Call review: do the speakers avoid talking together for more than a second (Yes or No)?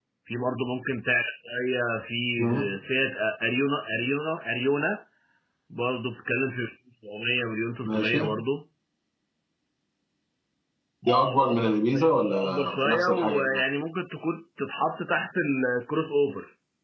No